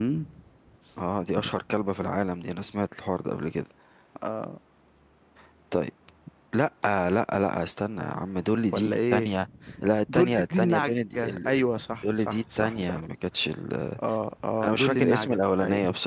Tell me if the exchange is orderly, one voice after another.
No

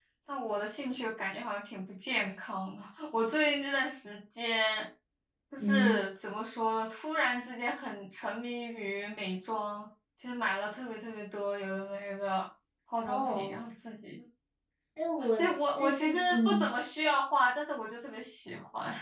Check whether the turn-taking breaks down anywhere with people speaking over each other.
Yes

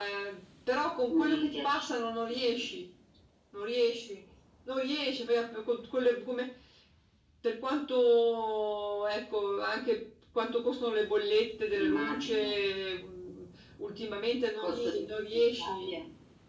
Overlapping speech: Yes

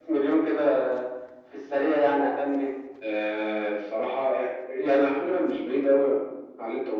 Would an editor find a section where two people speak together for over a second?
No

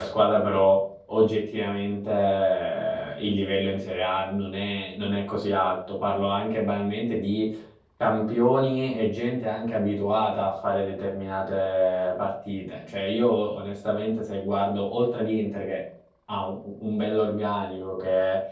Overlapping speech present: No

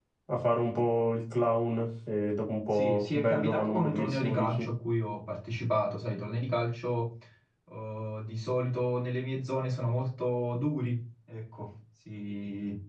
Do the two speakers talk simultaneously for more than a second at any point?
Yes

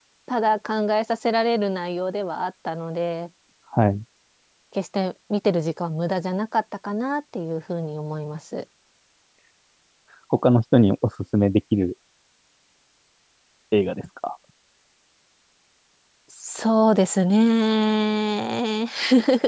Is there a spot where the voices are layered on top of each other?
No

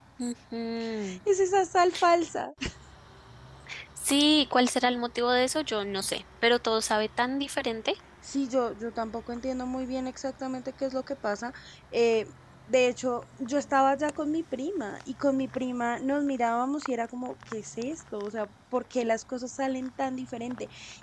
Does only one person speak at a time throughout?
Yes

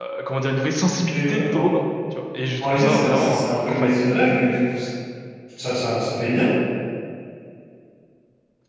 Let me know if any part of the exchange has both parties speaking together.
Yes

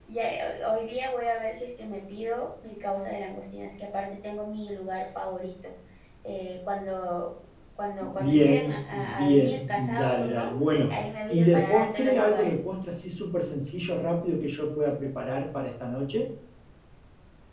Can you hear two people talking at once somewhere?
Yes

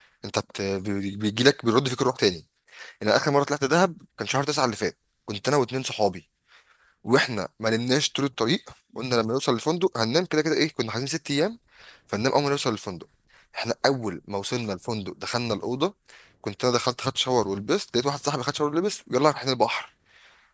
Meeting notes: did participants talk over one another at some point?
No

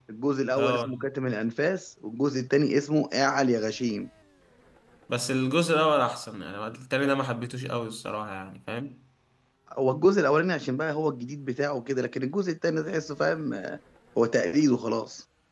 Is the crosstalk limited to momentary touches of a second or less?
Yes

